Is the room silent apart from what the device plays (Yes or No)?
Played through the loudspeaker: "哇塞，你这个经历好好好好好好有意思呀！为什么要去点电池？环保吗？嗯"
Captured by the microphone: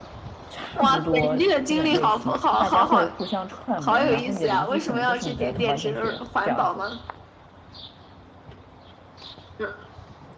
No